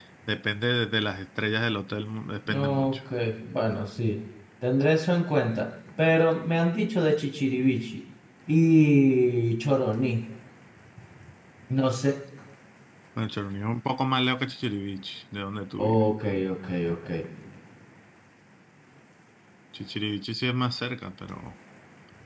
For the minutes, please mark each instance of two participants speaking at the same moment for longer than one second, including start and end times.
none

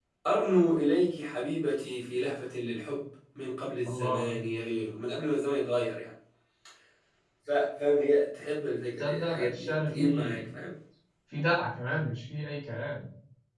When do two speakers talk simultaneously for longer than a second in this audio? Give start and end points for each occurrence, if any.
9.0-10.4

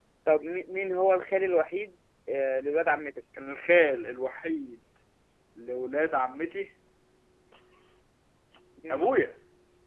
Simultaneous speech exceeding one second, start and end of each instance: none

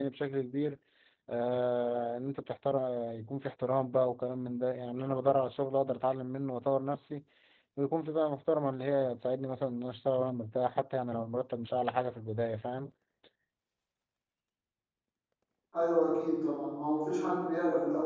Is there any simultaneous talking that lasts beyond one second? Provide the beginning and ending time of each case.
none

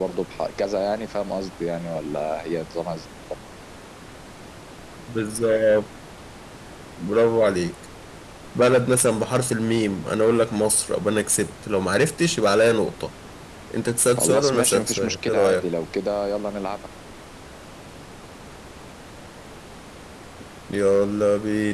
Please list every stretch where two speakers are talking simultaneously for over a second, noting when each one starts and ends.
14.2-15.7

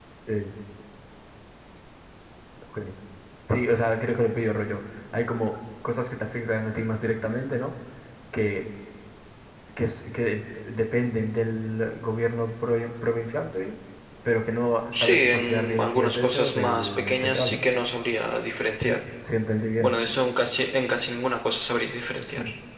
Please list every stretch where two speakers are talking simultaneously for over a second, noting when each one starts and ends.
14.9-17.6

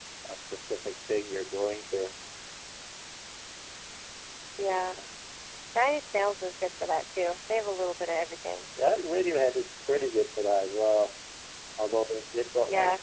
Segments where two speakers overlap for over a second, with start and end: none

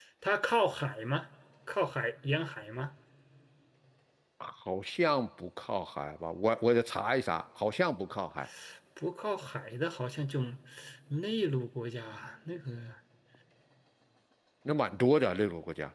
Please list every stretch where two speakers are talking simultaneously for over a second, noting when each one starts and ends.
none

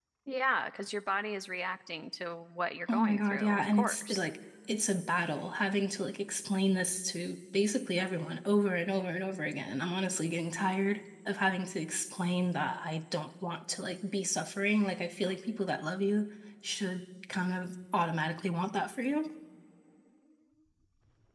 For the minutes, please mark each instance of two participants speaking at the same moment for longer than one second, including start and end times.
2.9-4.3

